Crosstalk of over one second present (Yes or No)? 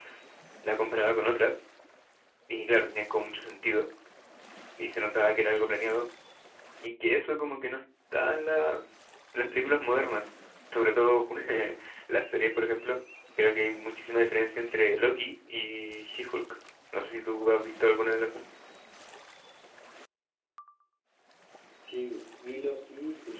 No